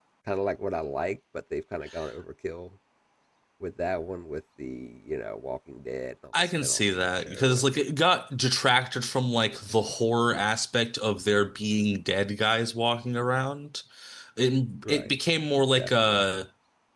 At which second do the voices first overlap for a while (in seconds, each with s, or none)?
6.4 s